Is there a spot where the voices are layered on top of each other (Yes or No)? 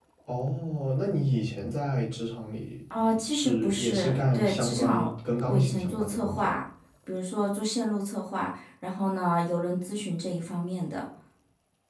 Yes